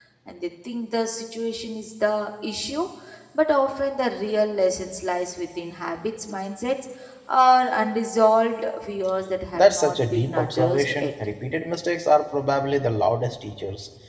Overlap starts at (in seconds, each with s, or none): 9.6 s